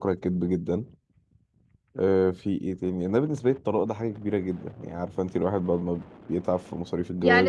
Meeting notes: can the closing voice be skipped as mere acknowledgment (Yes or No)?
No